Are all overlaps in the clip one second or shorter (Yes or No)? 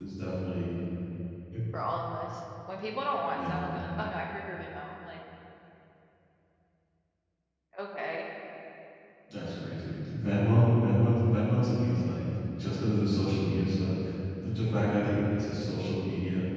Yes